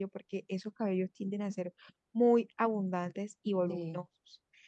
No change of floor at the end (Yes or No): Yes